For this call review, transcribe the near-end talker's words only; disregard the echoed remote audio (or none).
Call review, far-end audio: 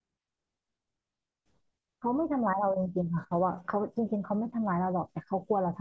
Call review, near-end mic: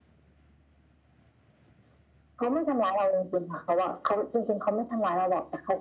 none